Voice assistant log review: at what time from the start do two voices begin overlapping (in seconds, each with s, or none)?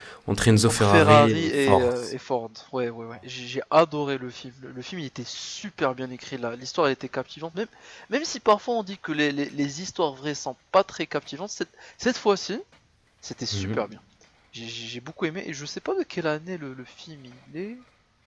0.7 s